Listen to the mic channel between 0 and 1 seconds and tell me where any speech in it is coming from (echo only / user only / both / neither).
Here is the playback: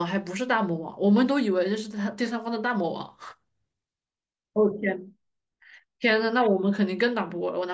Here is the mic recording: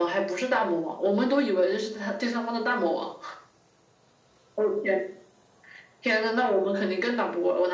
echo only